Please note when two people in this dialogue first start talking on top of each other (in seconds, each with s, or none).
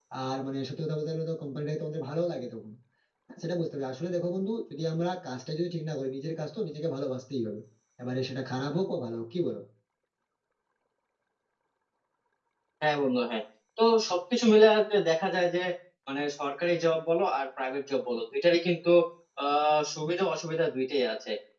none